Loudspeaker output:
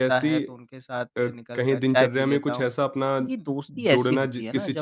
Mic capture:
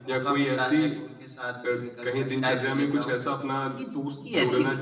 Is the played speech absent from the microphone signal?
No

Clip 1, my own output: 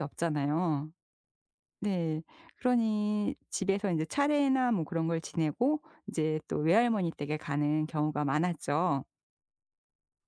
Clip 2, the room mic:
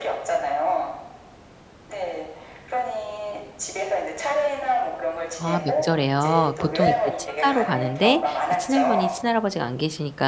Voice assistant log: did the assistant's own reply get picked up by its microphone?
Yes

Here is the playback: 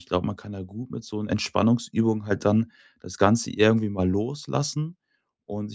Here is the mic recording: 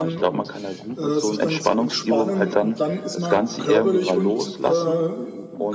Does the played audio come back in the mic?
Yes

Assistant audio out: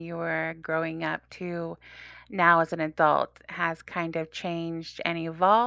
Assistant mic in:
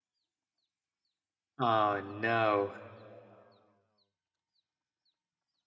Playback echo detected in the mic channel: No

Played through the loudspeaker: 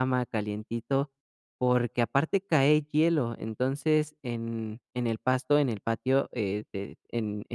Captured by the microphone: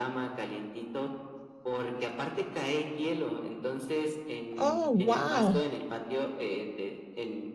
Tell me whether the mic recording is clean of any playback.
No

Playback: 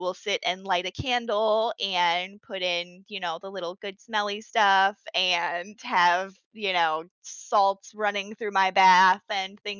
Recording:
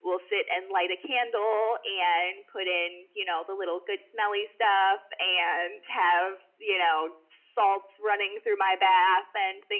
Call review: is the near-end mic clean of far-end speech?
No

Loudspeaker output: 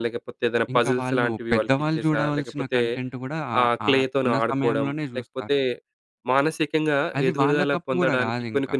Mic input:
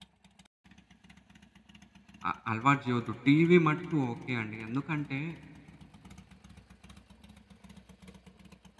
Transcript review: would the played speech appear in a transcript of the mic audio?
No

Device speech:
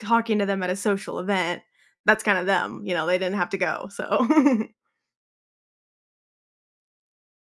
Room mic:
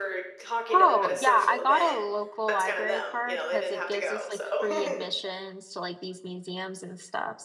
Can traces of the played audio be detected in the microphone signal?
Yes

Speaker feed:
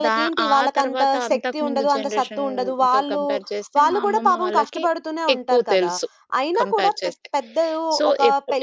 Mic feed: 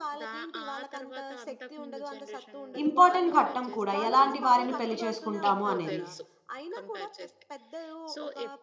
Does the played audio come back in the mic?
Yes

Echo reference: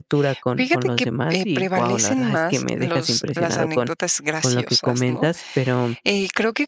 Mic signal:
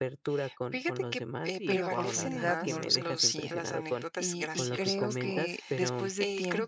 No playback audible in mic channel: No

